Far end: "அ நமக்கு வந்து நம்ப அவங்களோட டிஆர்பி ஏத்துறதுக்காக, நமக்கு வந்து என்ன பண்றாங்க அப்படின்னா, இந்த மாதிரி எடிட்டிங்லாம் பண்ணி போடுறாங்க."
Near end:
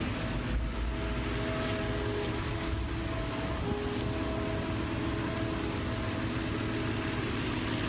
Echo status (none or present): none